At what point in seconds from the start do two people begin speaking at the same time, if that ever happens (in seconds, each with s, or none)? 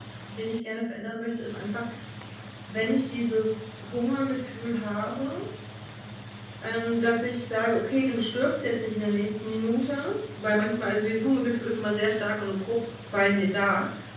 none